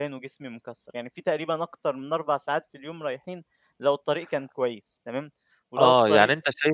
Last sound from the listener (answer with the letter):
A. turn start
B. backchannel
A